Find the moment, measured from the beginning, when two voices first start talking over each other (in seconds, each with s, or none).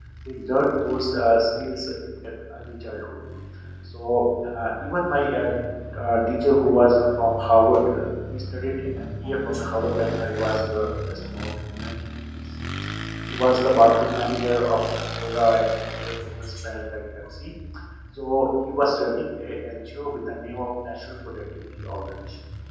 none